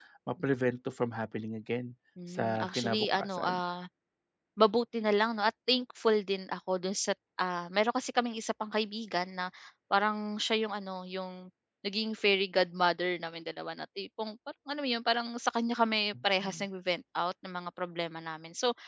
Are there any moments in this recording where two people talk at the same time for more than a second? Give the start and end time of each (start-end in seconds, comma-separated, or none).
2.3-3.6